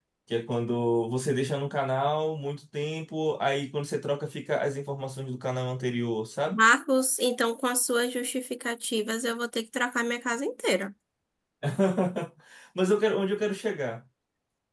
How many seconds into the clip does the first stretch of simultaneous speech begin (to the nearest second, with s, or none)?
none